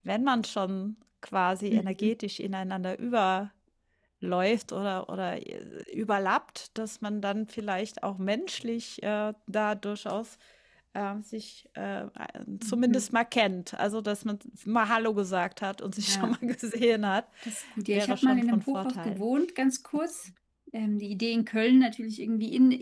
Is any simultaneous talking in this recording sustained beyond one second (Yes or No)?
Yes